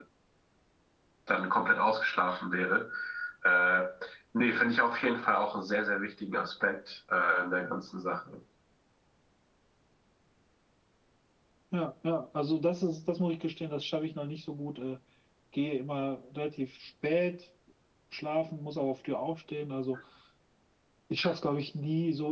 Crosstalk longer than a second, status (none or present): none